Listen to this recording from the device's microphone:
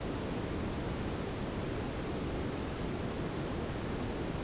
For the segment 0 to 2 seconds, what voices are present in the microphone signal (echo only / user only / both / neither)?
neither